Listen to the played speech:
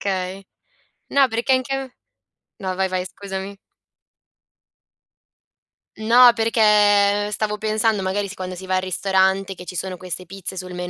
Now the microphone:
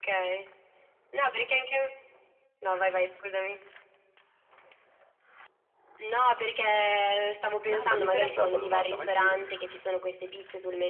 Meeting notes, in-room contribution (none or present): present